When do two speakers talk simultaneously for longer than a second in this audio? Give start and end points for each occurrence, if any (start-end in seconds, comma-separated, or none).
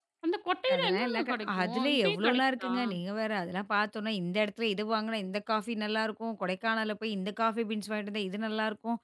0.8-2.7